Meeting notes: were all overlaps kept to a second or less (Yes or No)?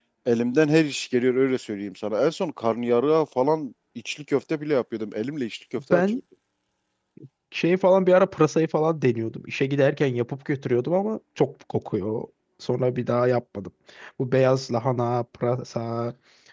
Yes